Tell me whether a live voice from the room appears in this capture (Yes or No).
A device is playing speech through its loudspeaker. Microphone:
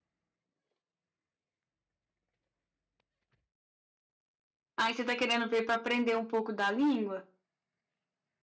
Yes